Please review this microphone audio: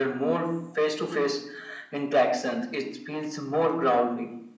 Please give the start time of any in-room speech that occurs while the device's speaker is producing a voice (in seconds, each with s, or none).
none